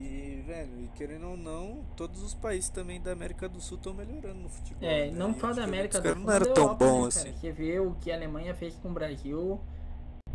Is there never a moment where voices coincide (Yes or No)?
No